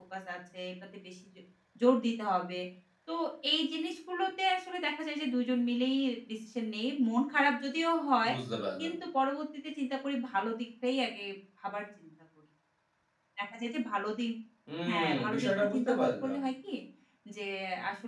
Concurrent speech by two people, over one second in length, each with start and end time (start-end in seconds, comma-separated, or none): 14.9-16.4